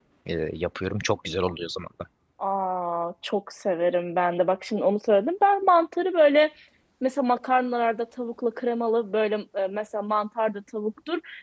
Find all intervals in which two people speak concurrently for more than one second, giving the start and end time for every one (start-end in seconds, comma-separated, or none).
none